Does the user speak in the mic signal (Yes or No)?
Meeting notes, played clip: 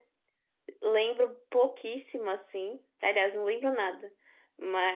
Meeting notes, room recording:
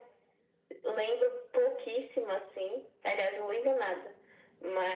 No